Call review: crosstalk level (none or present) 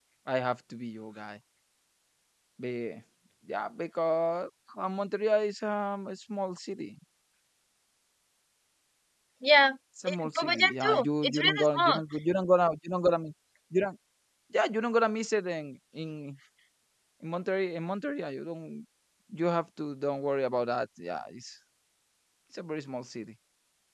present